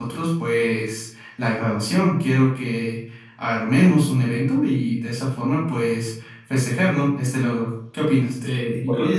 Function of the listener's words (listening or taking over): taking over